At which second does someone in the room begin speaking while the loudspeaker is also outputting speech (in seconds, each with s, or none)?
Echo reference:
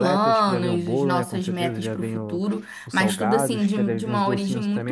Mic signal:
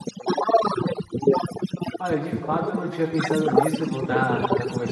2.0 s